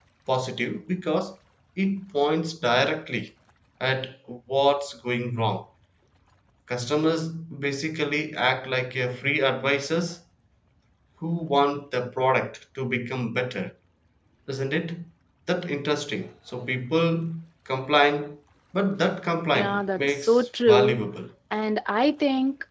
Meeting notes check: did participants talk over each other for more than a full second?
Yes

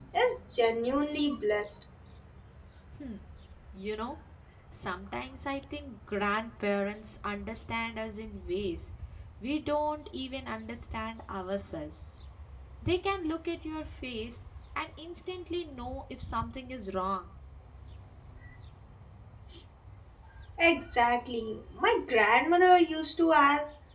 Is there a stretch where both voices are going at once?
No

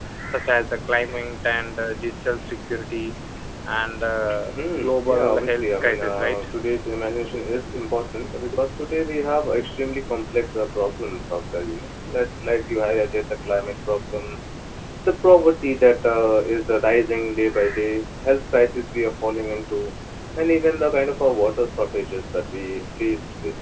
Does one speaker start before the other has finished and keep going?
Yes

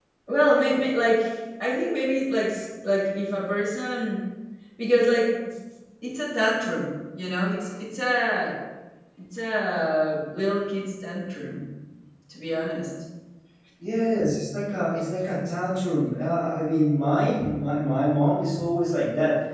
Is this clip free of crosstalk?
Yes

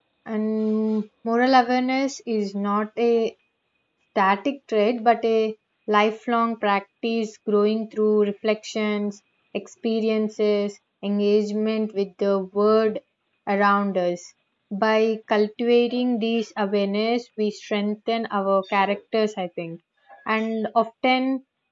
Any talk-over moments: No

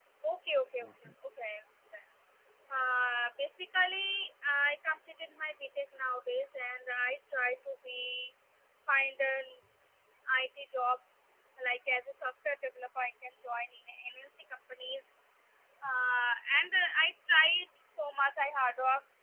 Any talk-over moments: No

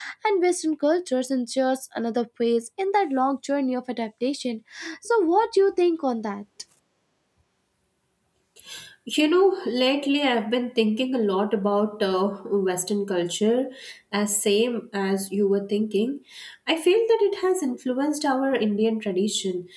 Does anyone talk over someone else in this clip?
No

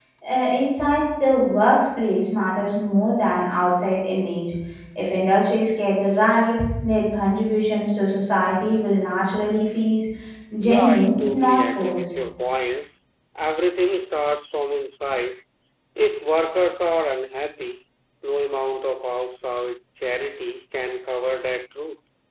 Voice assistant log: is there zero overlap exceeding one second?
No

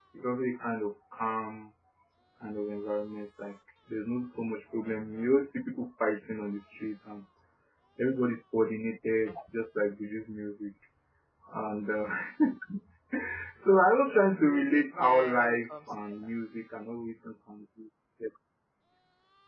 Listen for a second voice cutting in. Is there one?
Yes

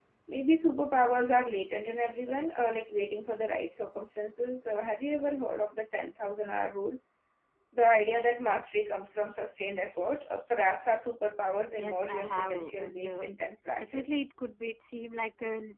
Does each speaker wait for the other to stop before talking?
No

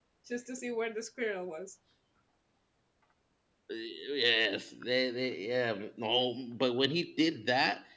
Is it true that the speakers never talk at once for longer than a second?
Yes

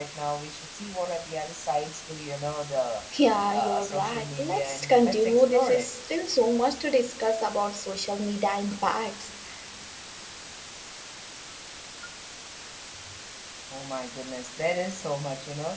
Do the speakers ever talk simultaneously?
Yes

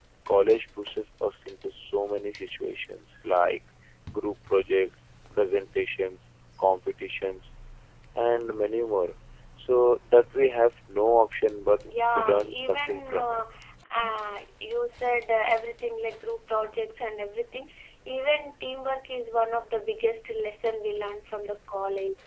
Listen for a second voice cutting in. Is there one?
Yes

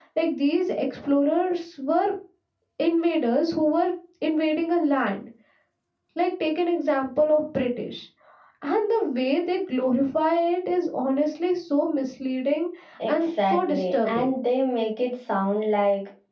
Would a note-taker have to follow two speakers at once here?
Yes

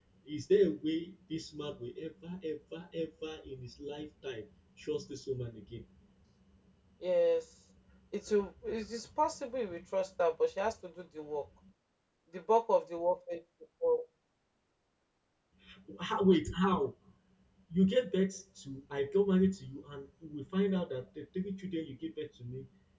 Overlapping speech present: No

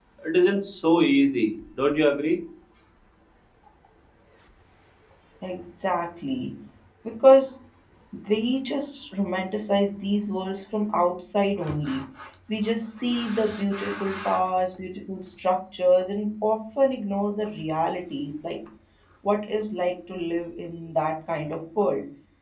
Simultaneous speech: No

